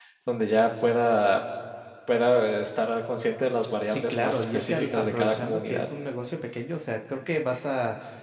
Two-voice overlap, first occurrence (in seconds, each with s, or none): 3.8 s